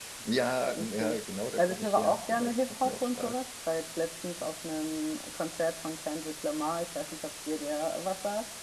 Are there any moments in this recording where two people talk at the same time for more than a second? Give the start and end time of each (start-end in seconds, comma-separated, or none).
1.6-3.4